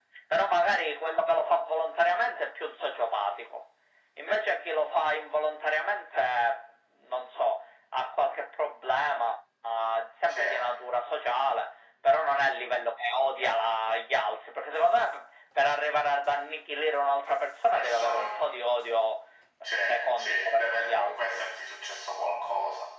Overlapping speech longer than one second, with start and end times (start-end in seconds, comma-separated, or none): 20.2-21.4